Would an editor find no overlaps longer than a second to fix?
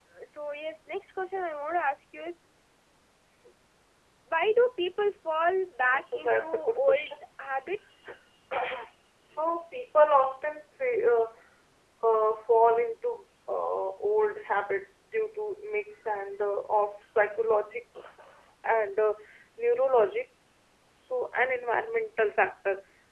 No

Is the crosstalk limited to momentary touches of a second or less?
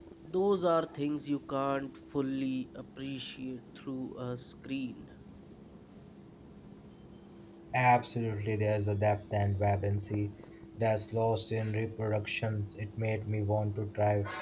Yes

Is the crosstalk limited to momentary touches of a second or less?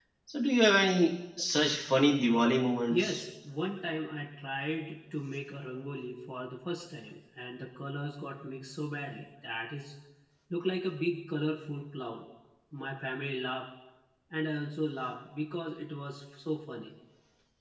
Yes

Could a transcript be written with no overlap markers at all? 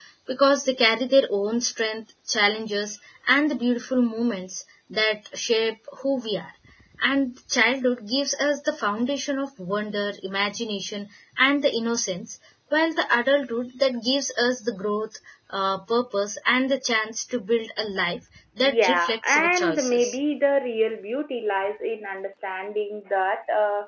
No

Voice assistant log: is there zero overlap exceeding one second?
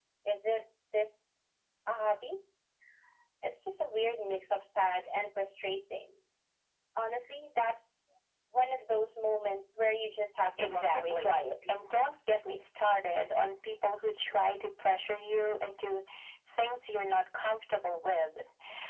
No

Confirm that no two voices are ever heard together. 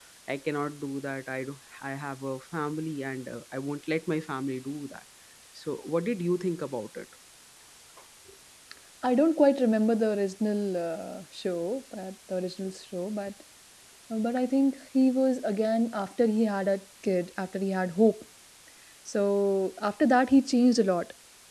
Yes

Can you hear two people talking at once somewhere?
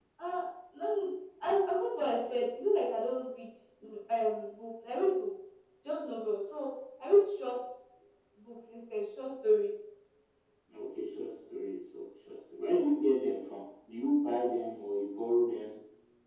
No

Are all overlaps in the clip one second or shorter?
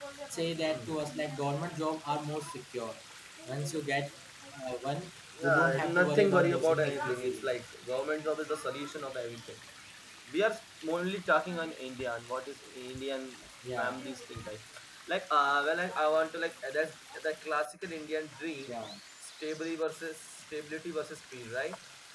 No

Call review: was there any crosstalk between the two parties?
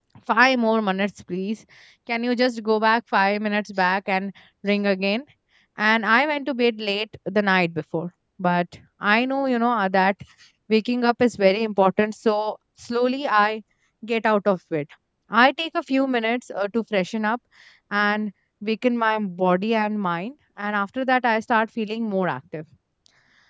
No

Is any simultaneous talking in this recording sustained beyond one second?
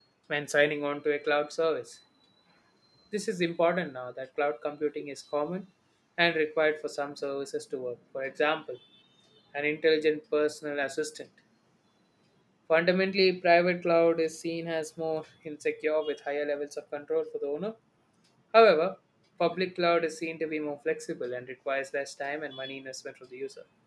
No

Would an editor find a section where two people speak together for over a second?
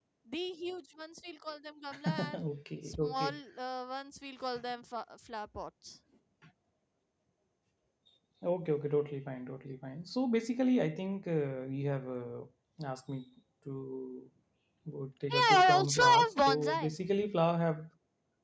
Yes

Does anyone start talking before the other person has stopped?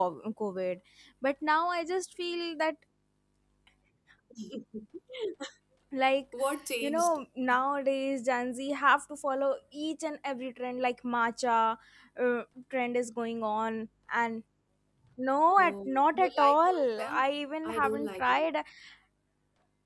Yes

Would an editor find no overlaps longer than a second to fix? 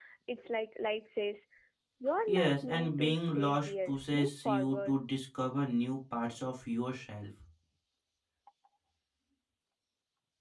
No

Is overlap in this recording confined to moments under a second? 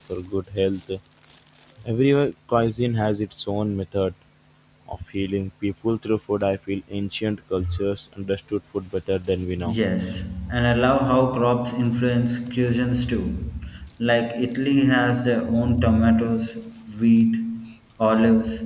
Yes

